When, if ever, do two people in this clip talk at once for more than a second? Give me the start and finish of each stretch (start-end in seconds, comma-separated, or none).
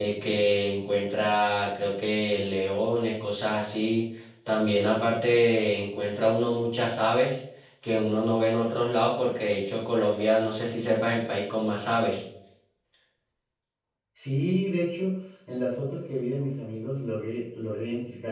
none